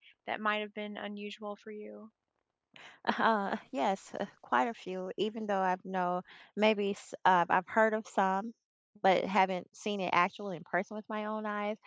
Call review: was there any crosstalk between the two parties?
No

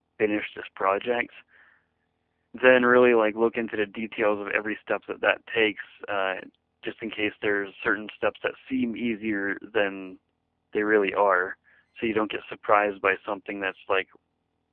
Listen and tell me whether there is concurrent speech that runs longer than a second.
No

